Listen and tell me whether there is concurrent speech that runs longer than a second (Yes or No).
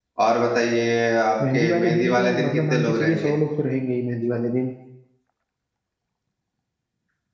Yes